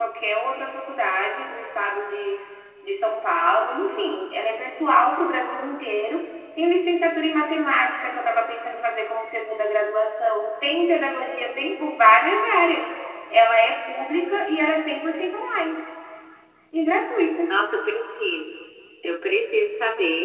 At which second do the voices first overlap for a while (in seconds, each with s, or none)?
none